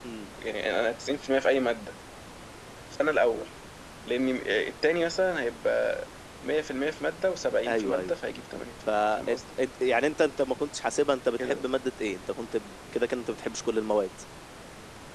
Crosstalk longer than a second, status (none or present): none